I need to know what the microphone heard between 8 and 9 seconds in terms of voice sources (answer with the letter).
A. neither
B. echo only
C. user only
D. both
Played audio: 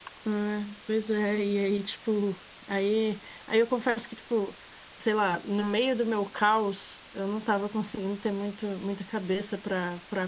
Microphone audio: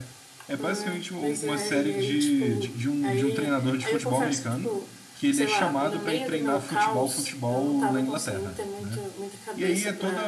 D